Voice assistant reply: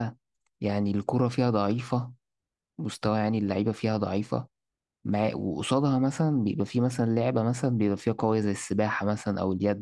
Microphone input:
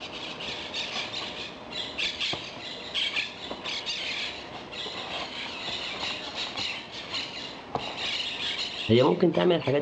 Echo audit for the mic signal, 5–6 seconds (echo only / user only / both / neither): neither